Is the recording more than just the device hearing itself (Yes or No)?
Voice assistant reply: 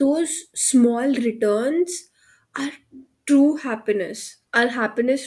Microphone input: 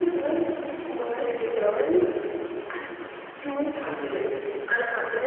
No